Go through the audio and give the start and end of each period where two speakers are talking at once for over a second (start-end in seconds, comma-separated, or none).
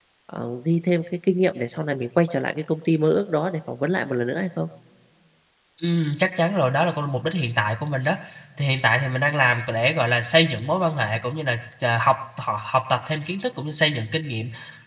none